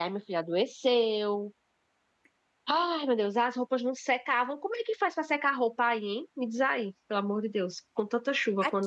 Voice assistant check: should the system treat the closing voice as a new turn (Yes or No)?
Yes